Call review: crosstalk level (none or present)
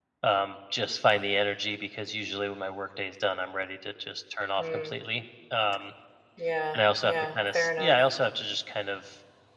present